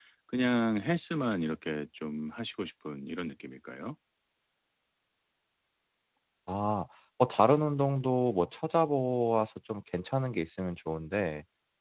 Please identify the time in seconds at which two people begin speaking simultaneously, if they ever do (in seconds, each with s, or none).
none